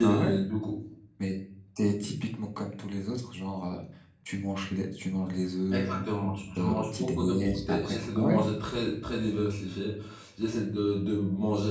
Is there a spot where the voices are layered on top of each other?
Yes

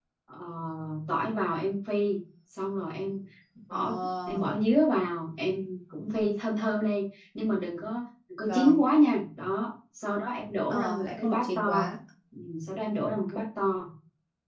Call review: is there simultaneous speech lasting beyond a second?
Yes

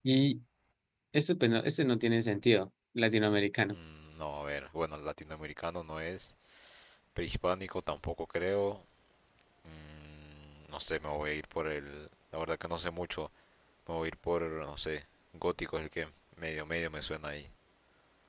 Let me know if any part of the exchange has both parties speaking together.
No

